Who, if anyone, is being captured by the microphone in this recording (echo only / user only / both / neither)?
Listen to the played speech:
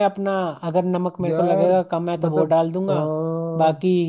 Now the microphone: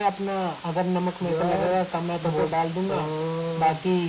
echo only